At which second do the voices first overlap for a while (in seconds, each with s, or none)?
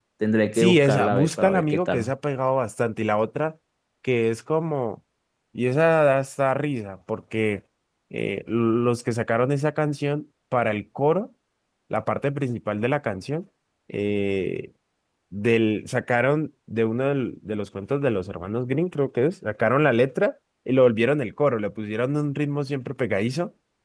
0.5 s